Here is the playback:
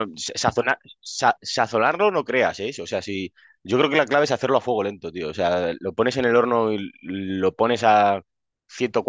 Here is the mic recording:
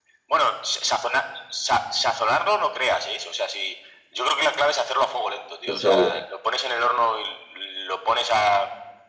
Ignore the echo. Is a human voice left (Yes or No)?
Yes